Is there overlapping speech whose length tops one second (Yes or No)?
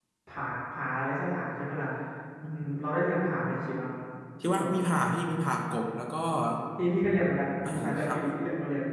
No